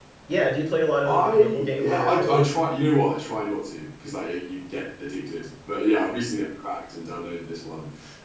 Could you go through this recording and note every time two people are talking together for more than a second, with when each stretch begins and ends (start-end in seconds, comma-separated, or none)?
1.0-2.5